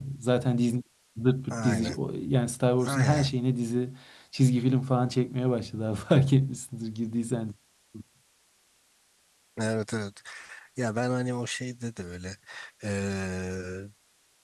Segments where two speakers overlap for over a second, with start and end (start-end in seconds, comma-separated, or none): none